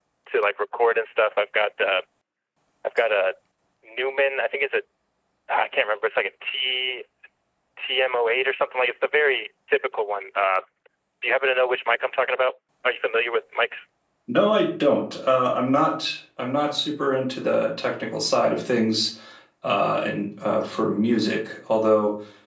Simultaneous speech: No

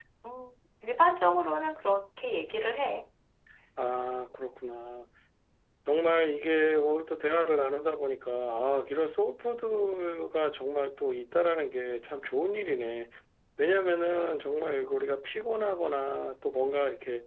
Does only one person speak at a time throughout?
Yes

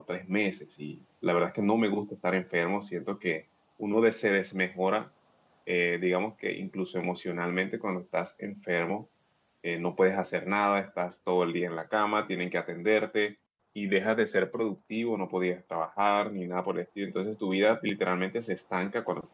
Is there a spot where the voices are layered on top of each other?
No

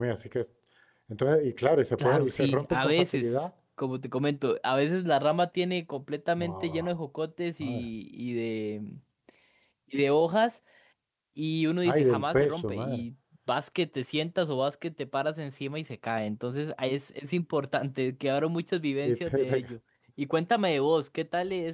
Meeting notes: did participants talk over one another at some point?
Yes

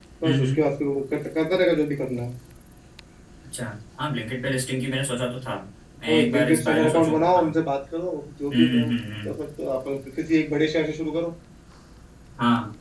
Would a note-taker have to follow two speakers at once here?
Yes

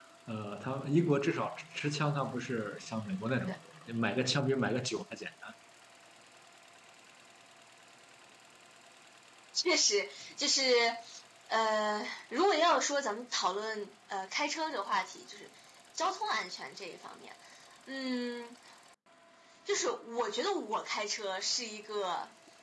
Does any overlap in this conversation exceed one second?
No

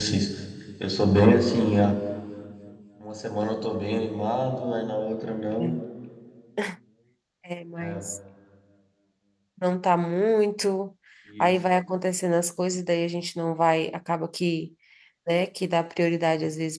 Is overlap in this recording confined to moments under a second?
Yes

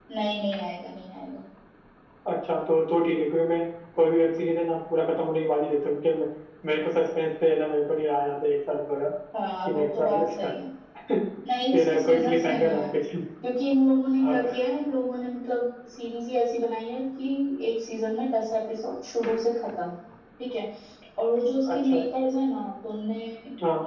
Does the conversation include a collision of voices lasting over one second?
Yes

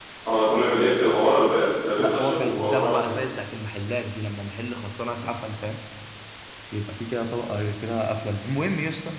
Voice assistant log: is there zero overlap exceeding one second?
No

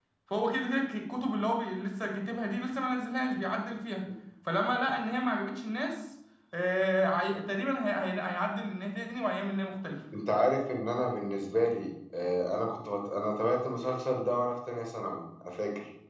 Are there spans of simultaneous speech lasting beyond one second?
No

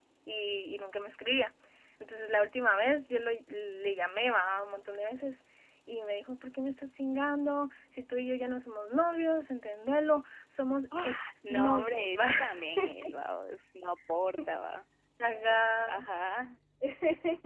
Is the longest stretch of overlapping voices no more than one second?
No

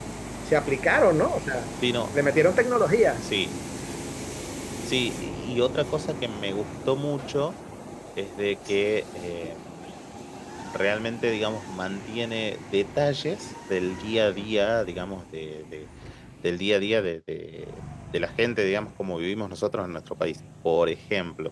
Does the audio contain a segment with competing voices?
No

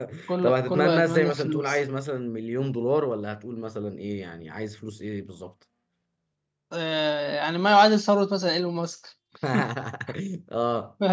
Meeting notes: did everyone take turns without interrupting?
No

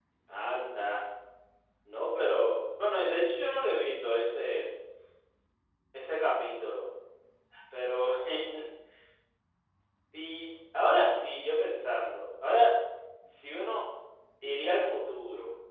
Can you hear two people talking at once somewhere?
No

